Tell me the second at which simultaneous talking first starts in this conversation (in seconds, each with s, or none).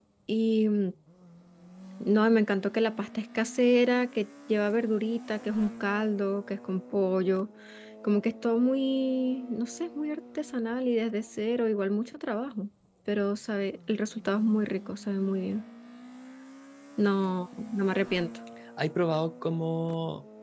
none